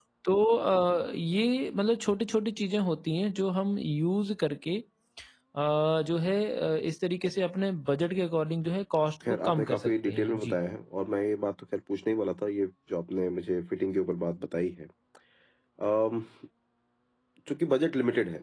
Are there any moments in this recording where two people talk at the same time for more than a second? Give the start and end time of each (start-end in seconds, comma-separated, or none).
9.3-10.6